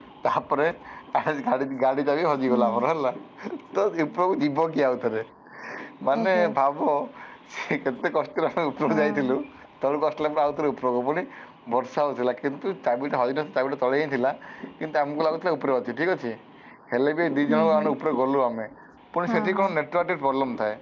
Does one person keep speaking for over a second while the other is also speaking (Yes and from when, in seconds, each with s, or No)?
No